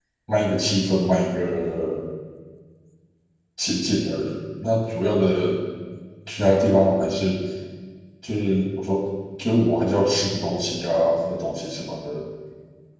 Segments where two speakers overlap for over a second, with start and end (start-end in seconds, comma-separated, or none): none